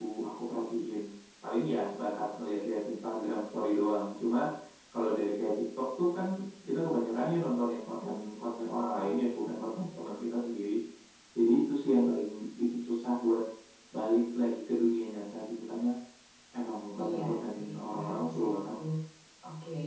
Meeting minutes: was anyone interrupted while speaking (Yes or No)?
Yes